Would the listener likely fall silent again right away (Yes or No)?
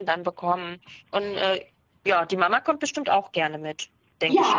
No